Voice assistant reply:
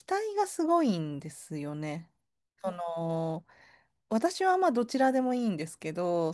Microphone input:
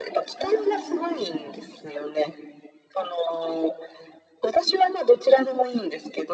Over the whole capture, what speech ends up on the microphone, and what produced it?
both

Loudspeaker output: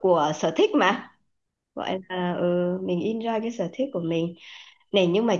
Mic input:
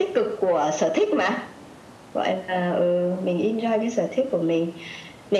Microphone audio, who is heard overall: echo only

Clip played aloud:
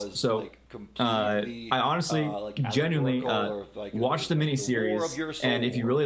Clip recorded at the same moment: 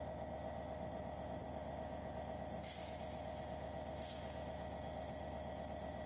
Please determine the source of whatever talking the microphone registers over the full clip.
neither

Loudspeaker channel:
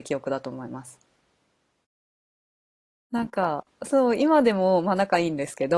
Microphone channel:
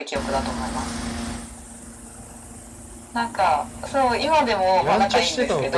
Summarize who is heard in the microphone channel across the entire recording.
both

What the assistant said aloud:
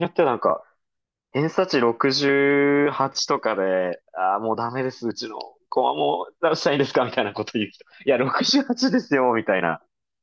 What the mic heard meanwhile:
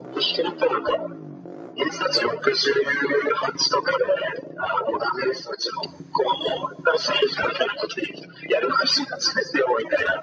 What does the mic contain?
echo only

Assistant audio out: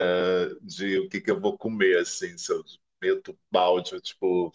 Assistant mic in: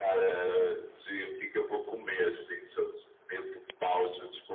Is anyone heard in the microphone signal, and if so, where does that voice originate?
echo only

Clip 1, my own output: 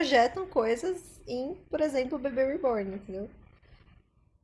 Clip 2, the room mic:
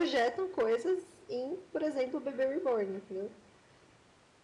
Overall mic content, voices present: echo only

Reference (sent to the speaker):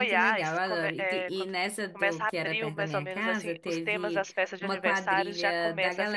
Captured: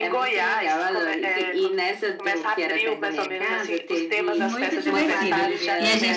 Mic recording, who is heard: both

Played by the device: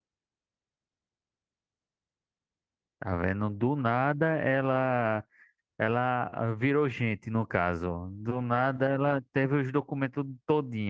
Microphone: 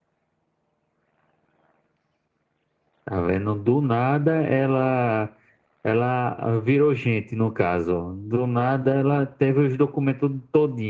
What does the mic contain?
echo only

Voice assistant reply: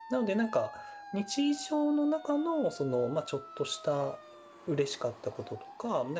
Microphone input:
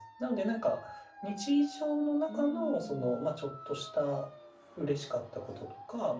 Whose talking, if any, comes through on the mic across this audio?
both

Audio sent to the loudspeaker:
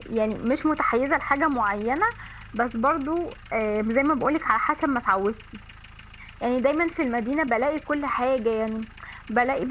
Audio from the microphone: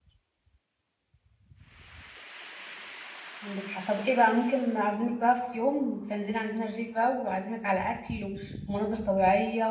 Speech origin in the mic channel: user only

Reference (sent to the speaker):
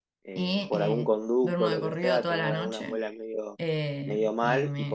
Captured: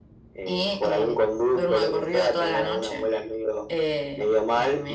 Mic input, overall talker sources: echo only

